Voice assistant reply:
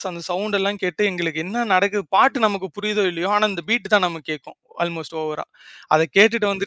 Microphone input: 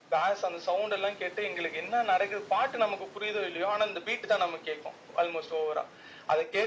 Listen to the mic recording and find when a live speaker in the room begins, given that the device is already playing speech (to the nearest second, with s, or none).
none